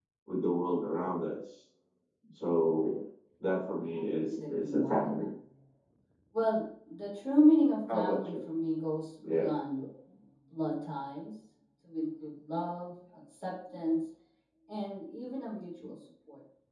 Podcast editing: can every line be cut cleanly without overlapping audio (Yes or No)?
No